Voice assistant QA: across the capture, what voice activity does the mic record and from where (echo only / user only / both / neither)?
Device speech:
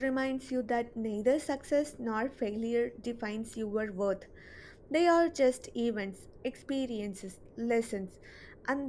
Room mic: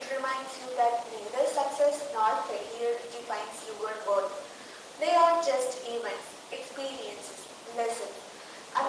echo only